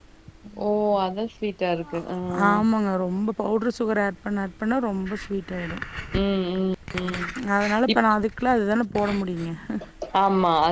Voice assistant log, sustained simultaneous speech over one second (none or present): none